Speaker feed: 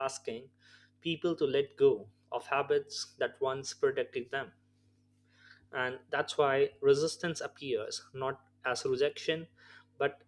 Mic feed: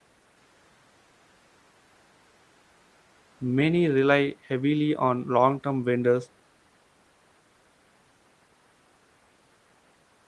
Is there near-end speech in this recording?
Yes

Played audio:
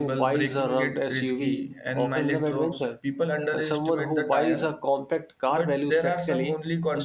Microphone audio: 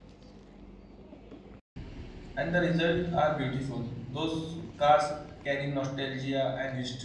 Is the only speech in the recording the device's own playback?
No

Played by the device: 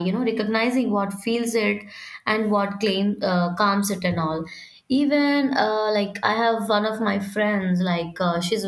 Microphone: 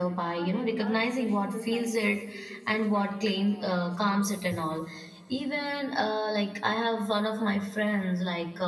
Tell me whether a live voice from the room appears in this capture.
Yes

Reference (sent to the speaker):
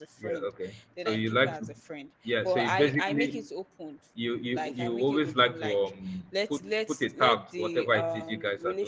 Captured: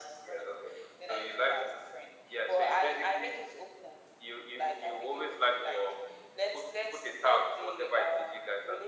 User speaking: No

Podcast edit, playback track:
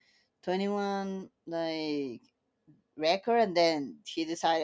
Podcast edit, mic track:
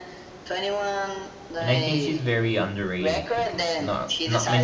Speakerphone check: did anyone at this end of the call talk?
Yes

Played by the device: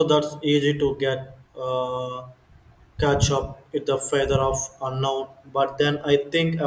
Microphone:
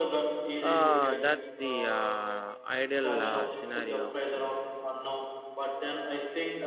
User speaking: Yes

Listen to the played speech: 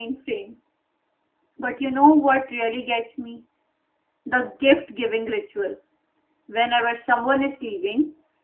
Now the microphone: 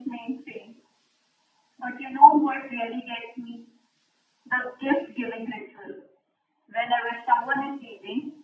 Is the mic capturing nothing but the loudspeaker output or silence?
Yes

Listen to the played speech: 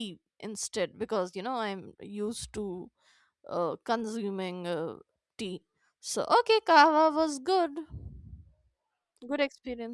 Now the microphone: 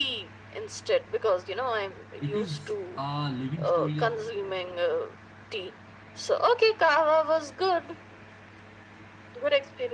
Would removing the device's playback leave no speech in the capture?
No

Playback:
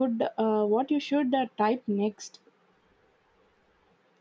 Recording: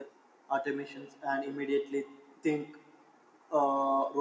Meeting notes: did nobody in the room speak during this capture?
No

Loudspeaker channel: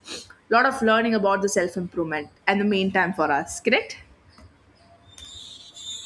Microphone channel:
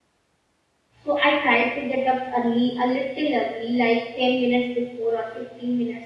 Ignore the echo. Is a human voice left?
Yes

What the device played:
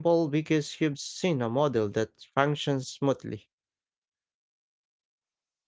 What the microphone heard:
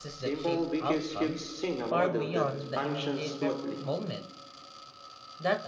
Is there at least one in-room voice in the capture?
Yes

